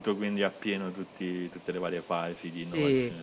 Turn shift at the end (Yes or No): No